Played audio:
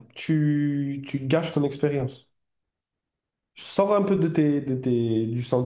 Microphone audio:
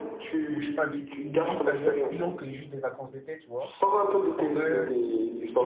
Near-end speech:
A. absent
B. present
B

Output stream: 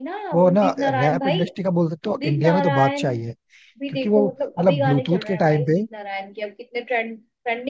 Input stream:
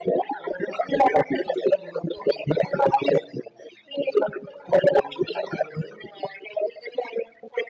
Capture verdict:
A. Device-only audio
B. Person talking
A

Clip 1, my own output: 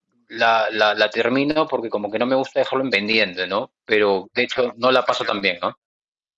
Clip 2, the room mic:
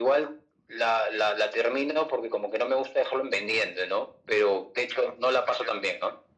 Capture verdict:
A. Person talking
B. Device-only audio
B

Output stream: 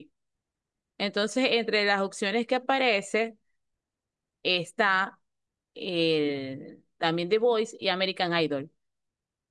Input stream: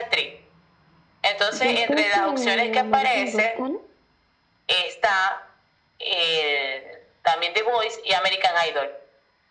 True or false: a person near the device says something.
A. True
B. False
A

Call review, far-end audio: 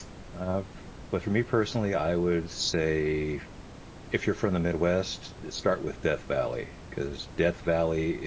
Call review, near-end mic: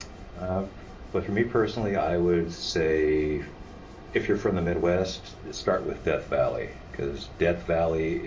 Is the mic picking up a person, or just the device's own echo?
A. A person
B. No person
B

